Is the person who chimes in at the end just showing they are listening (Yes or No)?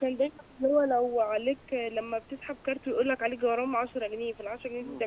No